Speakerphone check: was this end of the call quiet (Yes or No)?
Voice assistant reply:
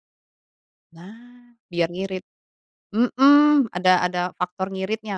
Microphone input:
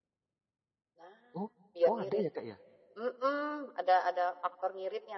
No